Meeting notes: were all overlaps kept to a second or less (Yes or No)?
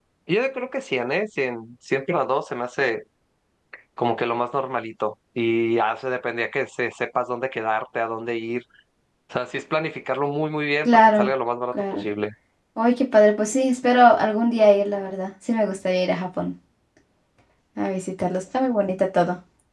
Yes